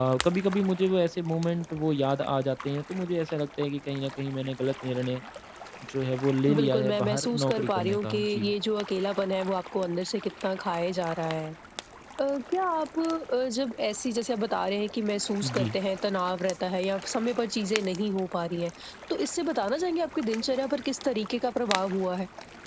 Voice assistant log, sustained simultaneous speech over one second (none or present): present